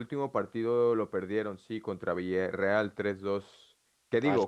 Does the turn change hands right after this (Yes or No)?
No